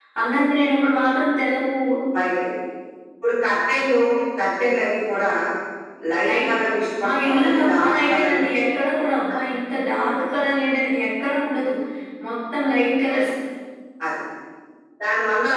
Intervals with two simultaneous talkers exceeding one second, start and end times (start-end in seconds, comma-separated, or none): 7.0-8.3